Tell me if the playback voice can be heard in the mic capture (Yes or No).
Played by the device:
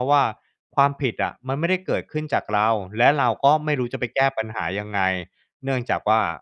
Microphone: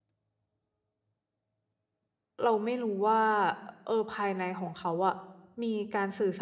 No